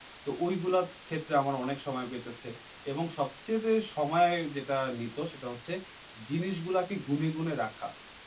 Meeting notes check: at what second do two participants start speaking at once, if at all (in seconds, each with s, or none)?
none